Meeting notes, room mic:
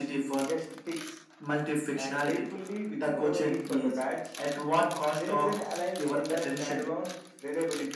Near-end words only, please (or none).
none